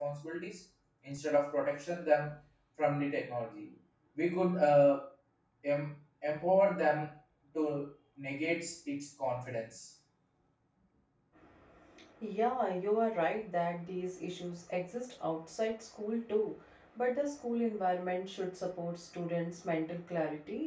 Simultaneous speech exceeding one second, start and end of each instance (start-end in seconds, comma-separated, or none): none